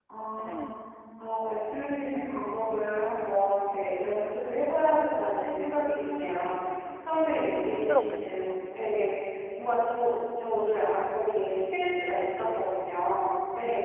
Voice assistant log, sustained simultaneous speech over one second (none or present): present